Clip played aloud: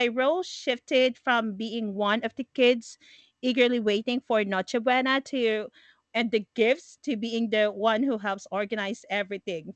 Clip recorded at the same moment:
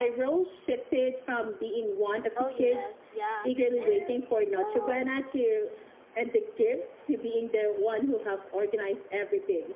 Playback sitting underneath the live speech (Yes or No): No